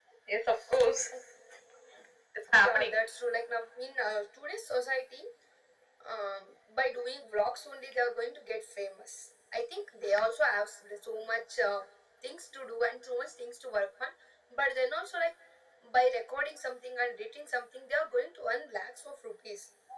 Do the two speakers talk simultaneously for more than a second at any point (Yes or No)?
No